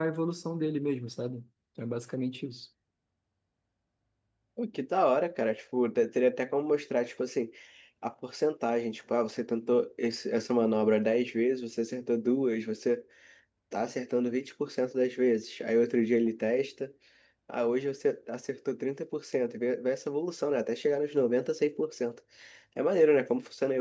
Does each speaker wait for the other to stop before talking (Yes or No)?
Yes